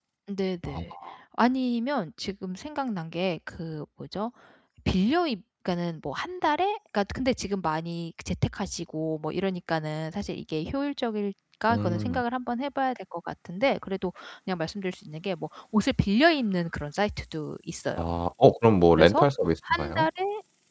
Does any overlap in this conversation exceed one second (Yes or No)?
No